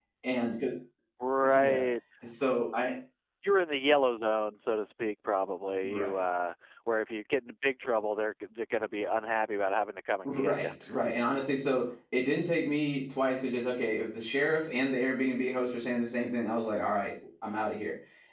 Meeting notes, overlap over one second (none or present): none